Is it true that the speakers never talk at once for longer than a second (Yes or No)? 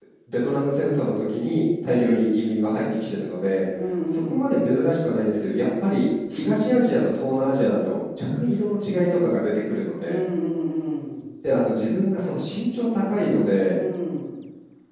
Yes